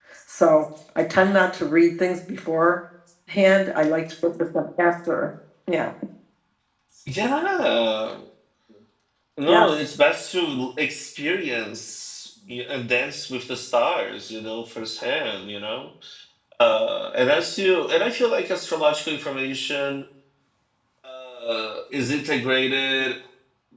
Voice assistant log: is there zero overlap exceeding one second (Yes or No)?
Yes